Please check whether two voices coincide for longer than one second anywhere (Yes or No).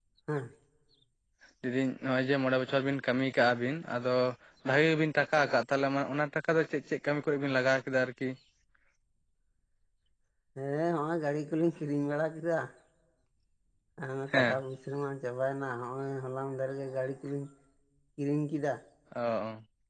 No